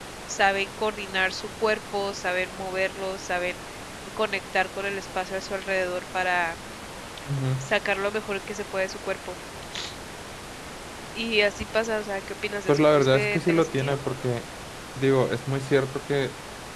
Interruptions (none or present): present